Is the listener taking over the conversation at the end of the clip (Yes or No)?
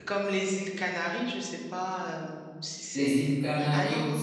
Yes